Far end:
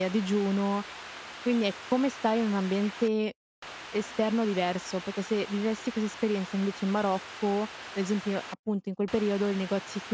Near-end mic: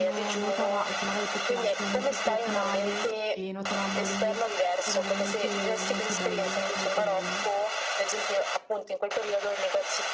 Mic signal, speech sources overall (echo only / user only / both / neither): both